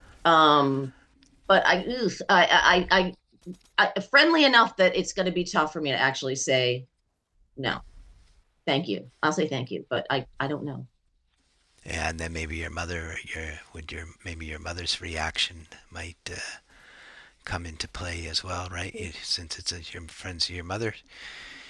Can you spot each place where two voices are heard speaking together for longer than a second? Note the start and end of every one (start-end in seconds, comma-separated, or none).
none